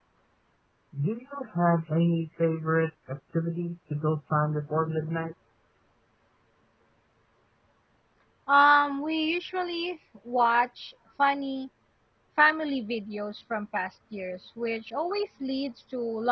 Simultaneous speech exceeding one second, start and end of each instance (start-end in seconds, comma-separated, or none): none